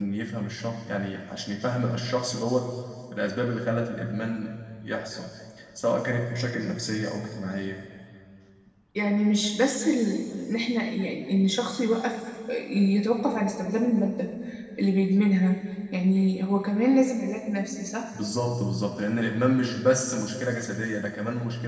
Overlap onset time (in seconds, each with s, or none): none